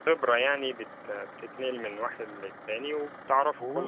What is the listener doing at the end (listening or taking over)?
taking over